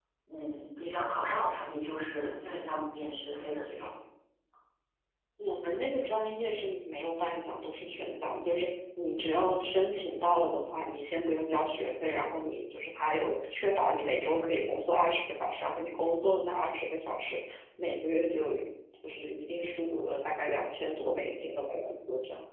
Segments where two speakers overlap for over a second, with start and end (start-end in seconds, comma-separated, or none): none